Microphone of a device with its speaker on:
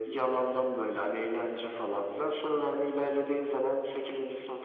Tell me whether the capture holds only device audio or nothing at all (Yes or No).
Yes